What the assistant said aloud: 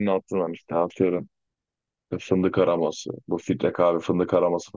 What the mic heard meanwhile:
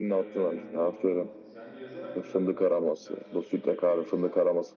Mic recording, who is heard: both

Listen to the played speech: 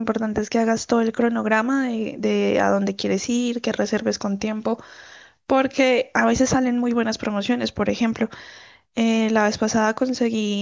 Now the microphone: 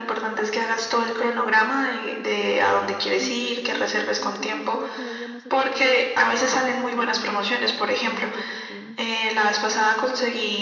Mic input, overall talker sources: both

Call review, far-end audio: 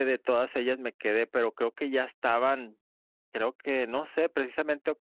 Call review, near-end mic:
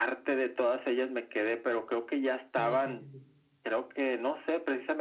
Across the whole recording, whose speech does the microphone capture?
both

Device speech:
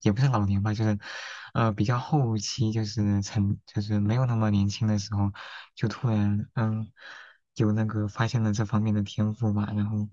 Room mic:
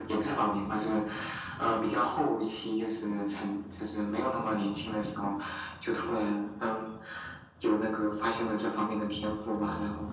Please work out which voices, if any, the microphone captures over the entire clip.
echo only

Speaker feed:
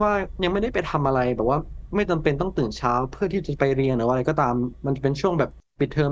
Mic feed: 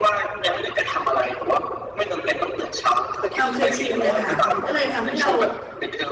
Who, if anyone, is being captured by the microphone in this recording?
both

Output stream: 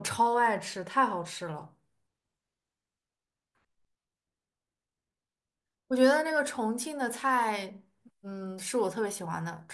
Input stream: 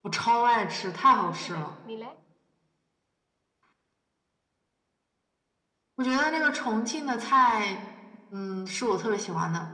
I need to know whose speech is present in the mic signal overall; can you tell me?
both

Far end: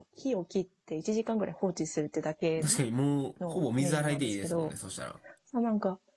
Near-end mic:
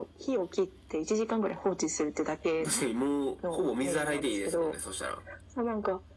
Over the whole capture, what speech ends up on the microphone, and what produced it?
echo only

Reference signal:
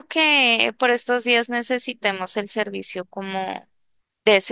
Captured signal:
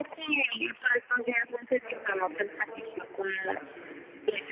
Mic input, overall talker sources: both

